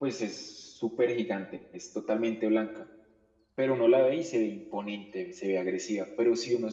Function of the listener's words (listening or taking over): listening